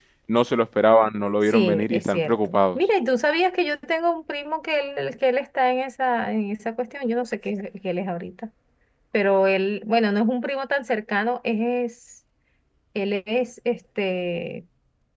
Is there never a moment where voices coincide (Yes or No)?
No